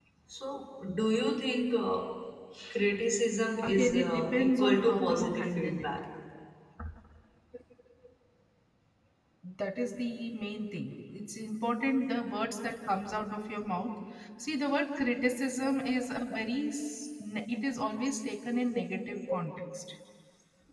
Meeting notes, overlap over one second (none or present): present